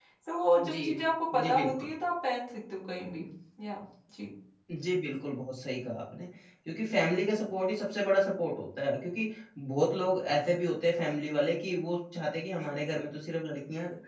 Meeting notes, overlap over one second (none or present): none